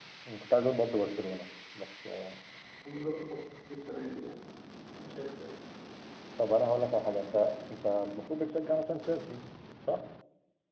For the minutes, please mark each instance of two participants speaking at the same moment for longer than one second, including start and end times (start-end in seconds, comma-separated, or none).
none